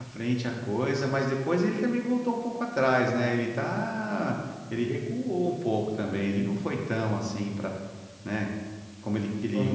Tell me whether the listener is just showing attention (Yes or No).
Yes